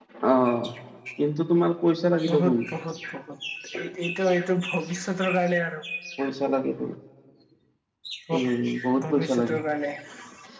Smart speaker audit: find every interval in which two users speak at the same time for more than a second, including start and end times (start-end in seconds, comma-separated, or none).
8.3-9.6